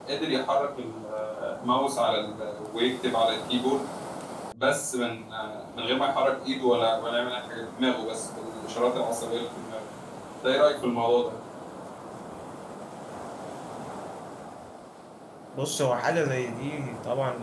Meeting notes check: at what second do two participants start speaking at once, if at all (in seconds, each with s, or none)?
none